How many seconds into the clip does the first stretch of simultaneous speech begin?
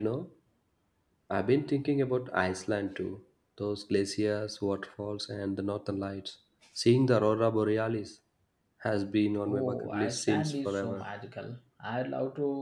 9.5 s

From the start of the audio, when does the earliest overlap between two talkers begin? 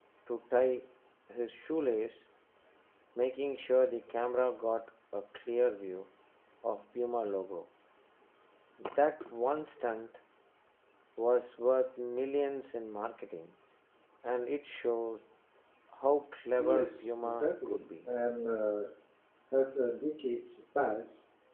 16.6 s

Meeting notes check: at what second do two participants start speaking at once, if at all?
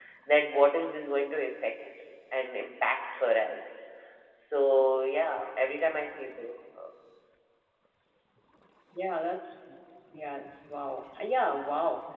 none

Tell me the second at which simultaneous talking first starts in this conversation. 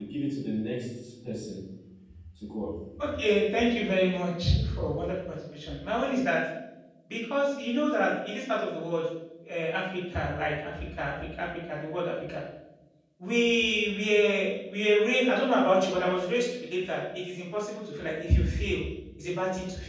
none

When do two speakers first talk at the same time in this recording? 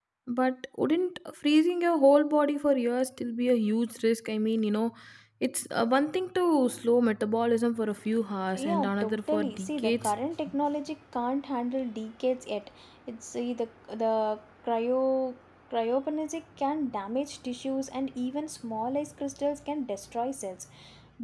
8.6 s

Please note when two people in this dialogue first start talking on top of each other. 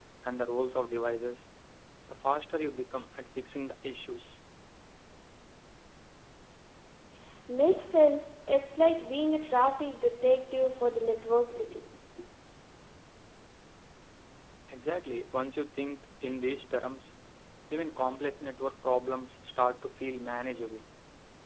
none

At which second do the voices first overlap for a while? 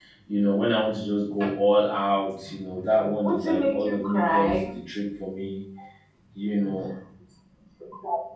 3.2 s

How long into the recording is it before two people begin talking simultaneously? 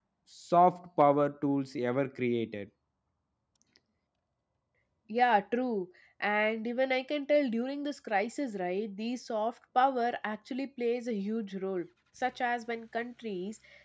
none

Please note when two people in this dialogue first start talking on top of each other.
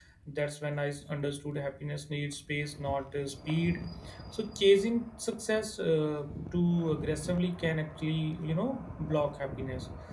none

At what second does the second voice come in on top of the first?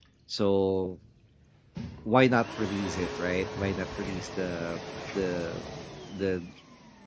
none

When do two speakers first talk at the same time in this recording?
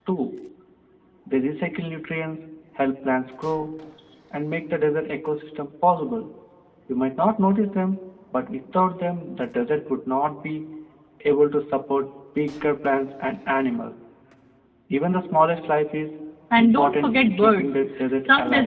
16.6 s

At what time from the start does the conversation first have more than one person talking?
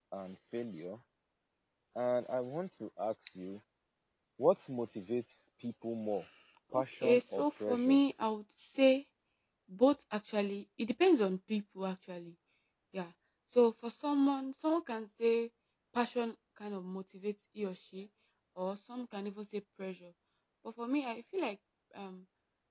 6.7 s

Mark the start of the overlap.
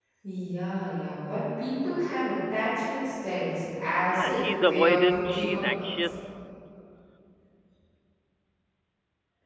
4.1 s

